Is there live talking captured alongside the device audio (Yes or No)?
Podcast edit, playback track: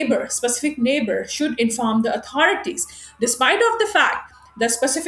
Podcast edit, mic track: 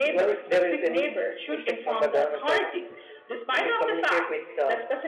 Yes